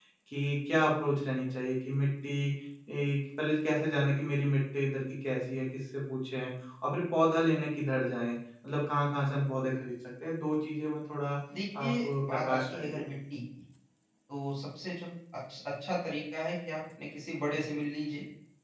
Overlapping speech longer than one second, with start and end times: 11.8-13.0

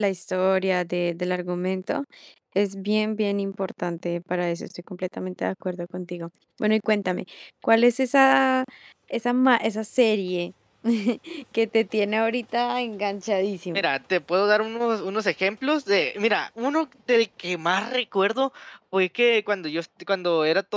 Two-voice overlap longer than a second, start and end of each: none

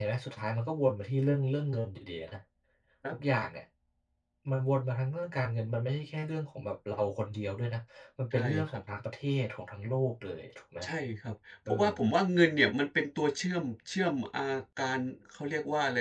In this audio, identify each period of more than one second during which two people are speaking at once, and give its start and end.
none

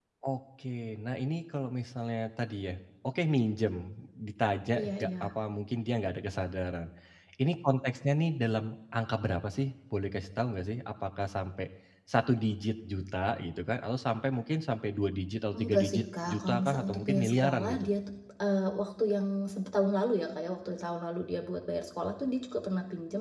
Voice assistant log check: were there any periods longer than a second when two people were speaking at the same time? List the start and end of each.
15.6-17.9

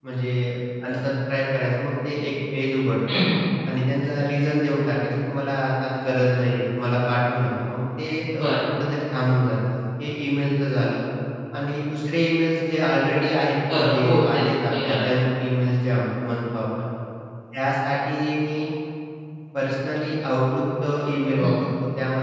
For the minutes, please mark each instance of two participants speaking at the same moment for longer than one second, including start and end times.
13.7-15.1

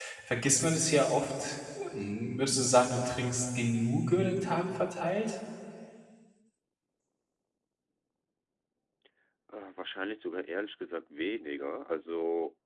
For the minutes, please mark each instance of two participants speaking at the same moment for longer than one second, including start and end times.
none

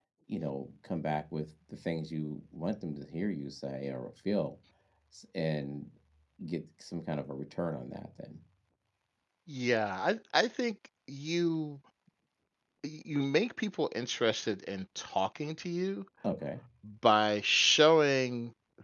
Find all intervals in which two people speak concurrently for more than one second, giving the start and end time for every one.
none

